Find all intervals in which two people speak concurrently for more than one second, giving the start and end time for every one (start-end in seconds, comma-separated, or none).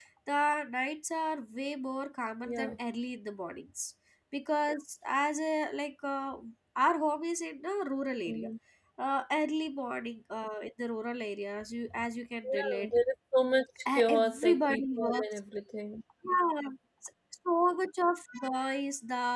14.0-15.3